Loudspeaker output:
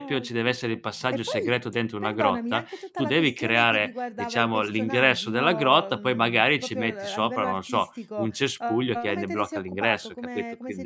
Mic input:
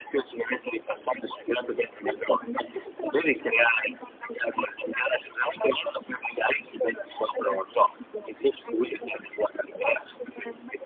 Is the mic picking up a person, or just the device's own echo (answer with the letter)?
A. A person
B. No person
B